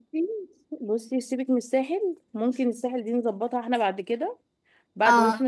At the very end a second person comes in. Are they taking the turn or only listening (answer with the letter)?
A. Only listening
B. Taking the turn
A